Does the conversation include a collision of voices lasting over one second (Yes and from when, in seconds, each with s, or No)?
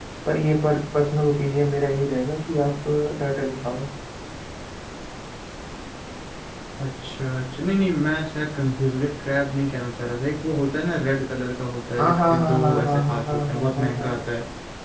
Yes, from 12.0 s